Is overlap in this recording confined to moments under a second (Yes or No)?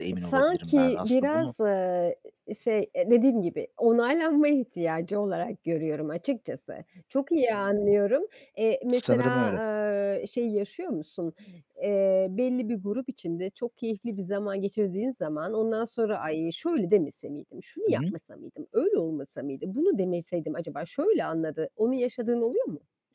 No